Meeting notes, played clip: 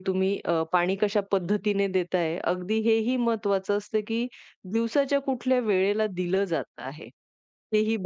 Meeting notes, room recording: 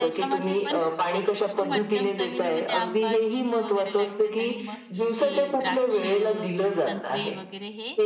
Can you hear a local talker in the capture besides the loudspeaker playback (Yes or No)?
Yes